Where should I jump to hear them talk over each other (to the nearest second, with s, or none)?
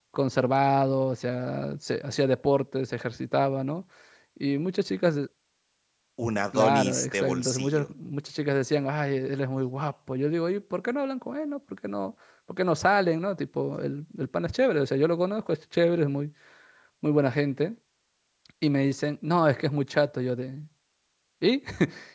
6 s